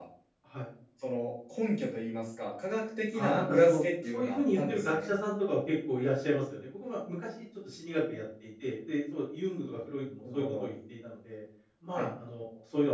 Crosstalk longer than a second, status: present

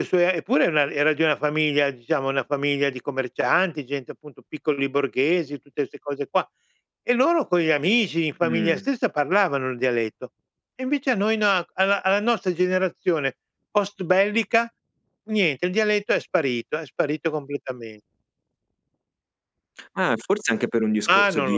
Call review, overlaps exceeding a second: none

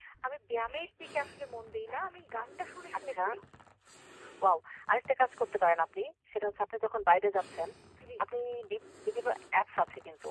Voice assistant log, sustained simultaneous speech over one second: none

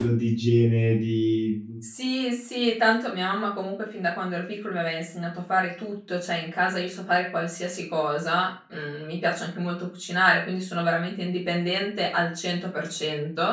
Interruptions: none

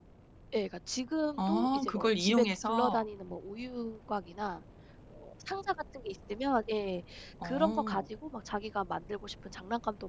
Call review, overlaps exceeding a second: present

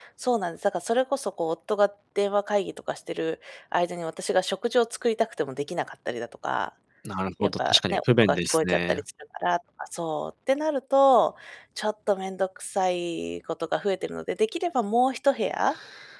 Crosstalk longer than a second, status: present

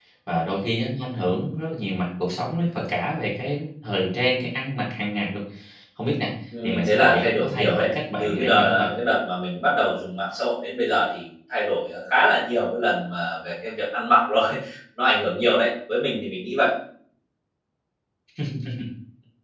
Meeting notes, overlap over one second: present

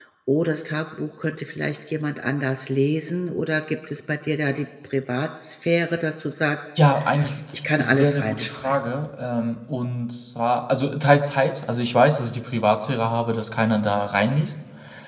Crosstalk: present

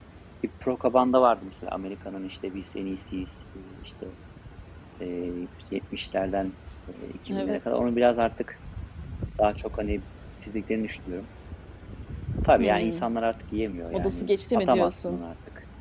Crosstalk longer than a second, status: present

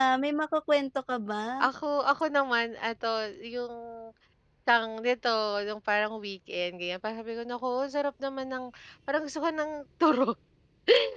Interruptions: none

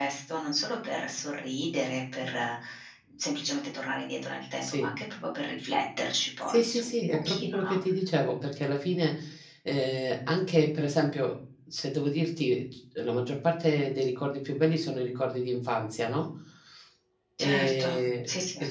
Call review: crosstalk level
present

